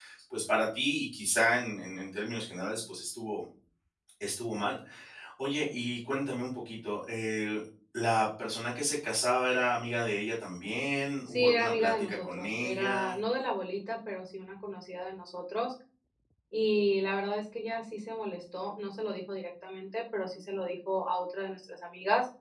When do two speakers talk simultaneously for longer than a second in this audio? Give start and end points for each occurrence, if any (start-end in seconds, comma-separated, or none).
11.3-13.2